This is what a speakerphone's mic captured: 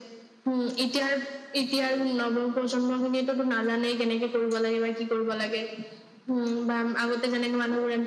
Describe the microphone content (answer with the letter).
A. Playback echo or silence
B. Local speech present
A